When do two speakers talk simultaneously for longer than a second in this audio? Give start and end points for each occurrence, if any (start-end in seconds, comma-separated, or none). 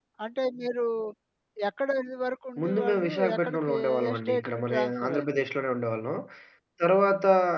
2.6-5.4